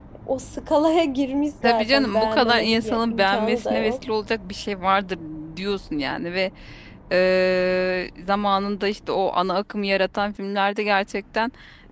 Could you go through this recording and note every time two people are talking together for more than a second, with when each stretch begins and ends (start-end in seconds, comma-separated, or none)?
1.6-3.9